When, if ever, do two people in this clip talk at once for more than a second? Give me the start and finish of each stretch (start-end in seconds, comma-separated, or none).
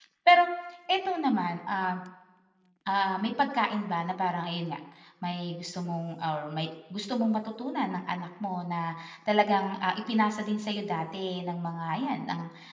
none